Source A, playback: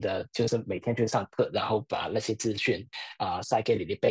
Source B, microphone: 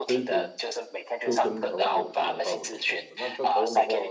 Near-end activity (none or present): present